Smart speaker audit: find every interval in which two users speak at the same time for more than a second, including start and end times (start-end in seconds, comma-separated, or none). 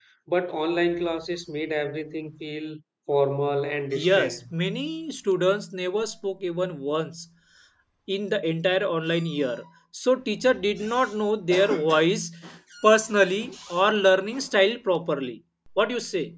none